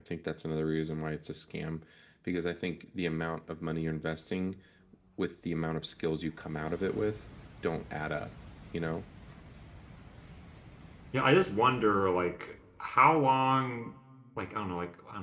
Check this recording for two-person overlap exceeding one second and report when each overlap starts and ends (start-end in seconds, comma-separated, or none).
none